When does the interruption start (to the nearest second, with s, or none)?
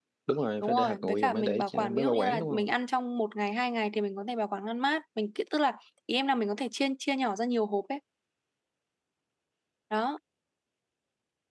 1 s